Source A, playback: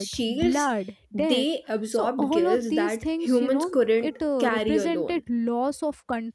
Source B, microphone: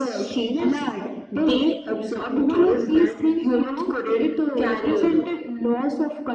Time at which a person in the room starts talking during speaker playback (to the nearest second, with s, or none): none